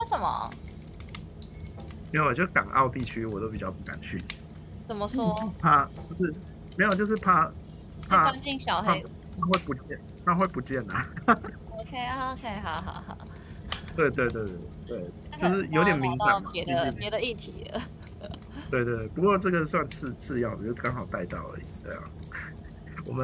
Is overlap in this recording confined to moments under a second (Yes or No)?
No